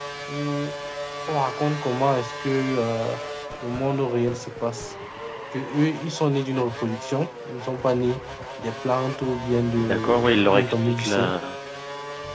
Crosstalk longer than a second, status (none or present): present